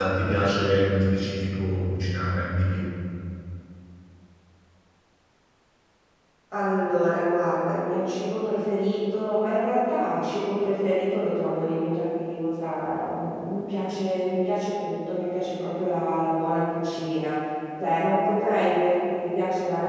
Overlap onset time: none

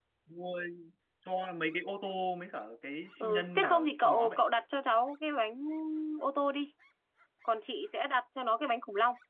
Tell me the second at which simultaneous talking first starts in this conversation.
3 s

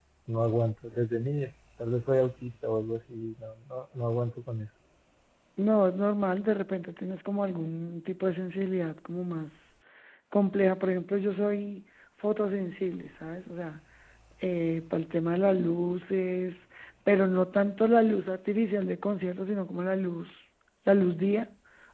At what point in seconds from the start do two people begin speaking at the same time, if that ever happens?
none

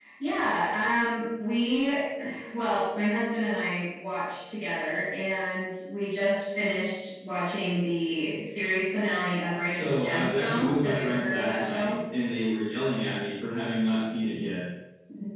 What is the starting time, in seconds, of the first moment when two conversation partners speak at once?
10 s

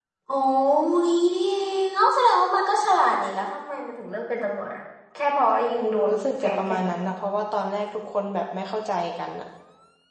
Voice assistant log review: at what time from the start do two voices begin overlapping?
6 s

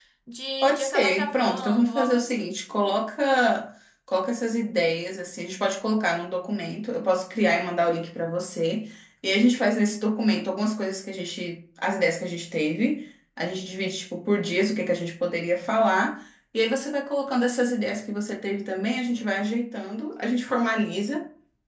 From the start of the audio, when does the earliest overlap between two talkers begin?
1 s

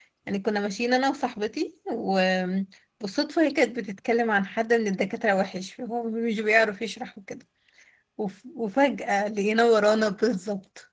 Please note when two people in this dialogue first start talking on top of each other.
none

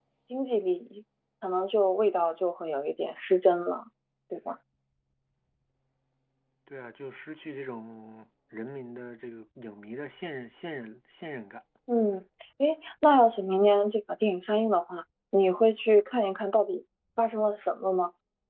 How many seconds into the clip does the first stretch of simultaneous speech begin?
none

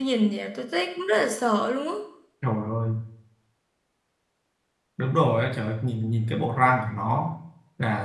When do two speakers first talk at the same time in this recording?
none

